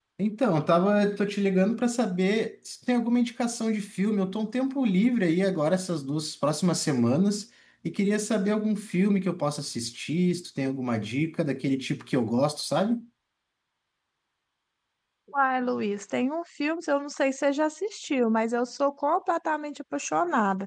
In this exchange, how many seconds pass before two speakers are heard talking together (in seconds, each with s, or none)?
none